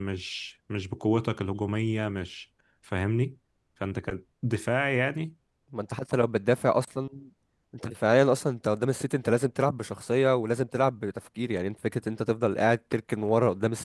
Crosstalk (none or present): none